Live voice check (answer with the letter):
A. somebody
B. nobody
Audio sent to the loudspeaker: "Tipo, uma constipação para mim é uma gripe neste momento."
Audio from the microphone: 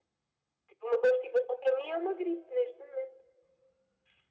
B